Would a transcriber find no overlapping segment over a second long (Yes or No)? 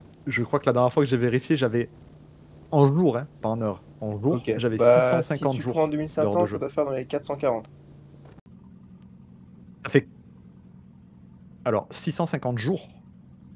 No